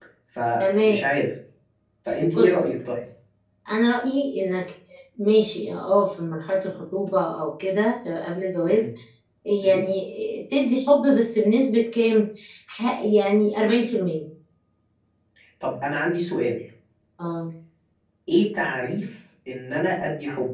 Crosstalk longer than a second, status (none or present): none